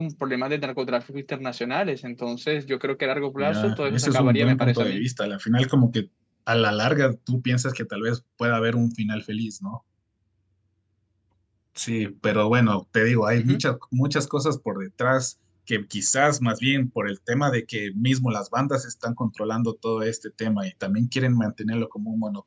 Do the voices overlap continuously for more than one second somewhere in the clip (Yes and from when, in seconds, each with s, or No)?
Yes, from 3.4 s